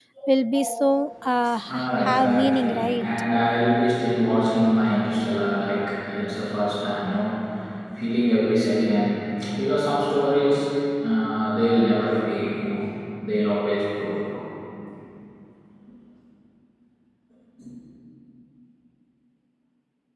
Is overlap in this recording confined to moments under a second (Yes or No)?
No